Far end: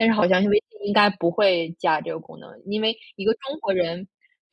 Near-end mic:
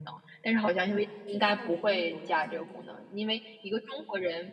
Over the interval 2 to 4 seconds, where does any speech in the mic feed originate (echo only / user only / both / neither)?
both